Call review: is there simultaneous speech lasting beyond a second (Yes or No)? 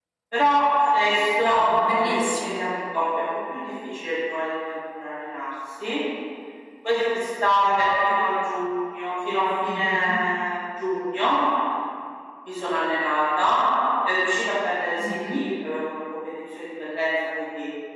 Yes